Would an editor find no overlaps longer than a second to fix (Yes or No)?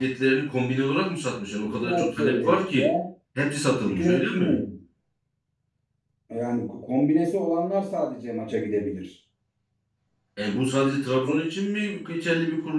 No